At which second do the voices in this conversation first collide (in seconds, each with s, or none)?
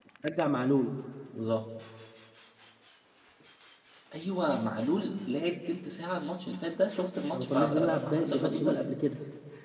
7.3 s